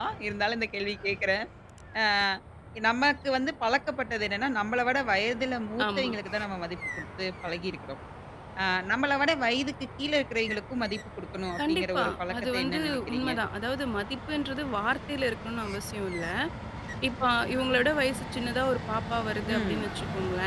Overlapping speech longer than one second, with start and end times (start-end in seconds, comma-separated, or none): 11.6-13.3